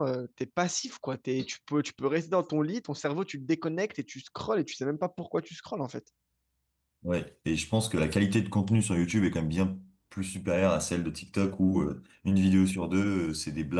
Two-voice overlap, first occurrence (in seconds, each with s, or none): none